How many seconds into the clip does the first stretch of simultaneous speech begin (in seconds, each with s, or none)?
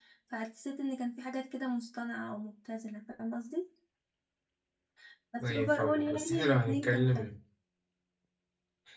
5.4 s